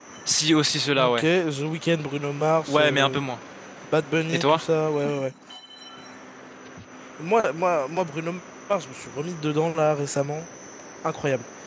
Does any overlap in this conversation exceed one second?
No

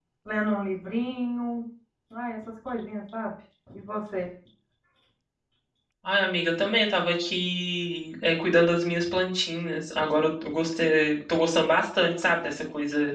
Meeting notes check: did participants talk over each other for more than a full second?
No

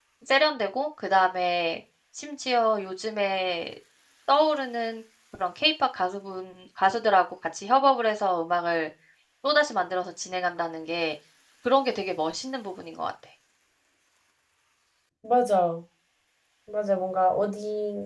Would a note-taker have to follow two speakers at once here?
No

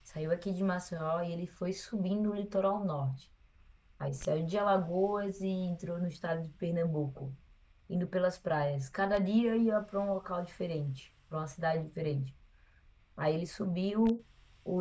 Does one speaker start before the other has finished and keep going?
No

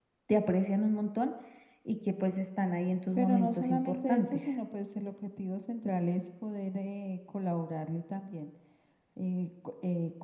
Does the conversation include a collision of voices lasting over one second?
Yes, from 3.2 s

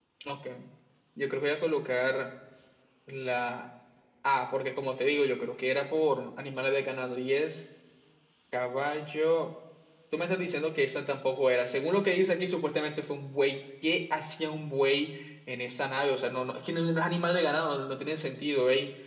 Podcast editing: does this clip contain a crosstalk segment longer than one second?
No

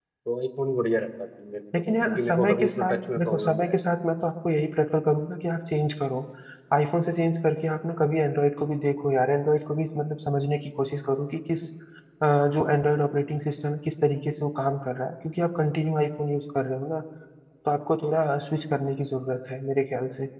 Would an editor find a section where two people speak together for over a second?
Yes, from 1.7 s

